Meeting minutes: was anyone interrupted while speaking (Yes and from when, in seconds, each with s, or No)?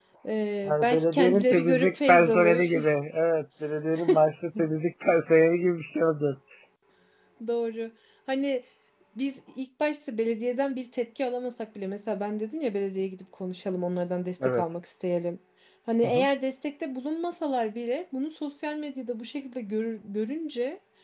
Yes, from 0.7 s